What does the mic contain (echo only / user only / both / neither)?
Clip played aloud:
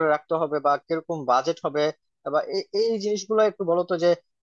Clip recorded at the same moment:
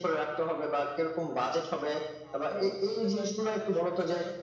both